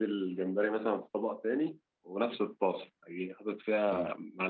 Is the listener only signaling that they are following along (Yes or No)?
Yes